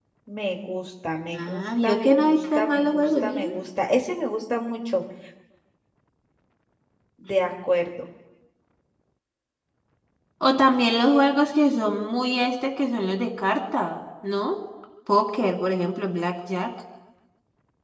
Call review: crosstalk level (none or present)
present